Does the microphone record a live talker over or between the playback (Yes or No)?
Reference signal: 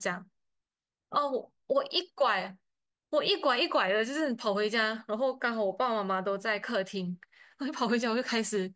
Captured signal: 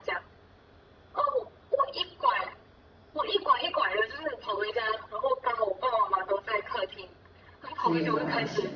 Yes